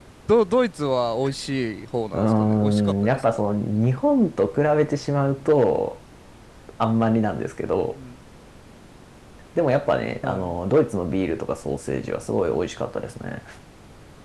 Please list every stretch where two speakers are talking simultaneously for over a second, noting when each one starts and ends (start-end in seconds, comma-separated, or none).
2.1-3.5